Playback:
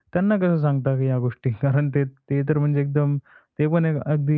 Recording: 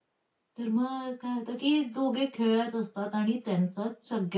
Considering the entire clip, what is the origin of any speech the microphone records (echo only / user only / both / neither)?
user only